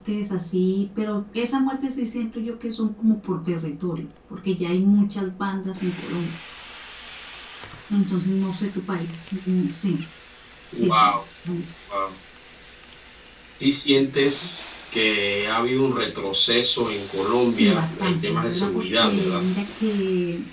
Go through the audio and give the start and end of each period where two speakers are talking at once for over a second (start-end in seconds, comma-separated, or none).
17.5-19.4